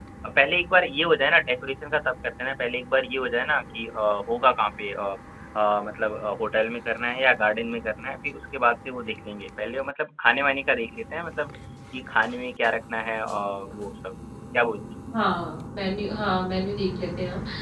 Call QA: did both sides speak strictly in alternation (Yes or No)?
Yes